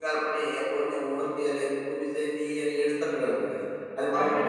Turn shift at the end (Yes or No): Yes